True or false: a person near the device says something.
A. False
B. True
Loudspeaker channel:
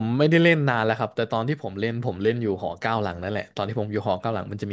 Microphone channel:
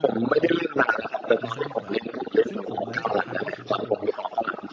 B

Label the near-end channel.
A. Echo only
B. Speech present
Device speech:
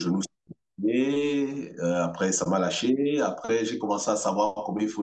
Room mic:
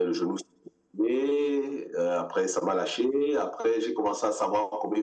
A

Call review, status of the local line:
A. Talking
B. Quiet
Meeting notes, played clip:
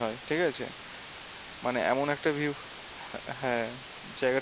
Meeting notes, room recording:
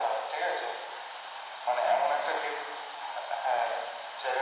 B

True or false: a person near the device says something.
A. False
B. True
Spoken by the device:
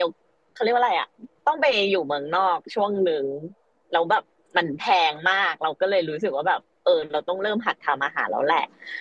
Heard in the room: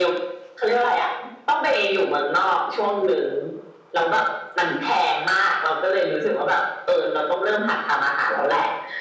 A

